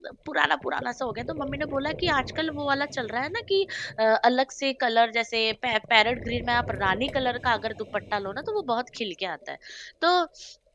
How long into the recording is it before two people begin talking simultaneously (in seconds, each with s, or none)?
none